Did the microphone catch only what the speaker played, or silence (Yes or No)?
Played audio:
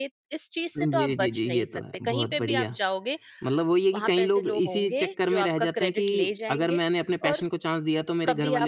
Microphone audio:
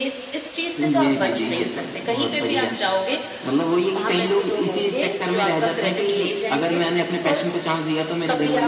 Yes